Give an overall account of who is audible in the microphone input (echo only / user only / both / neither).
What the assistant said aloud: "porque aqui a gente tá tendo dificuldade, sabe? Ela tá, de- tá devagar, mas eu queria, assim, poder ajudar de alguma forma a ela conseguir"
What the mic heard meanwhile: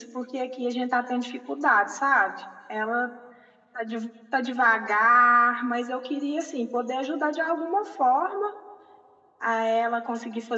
echo only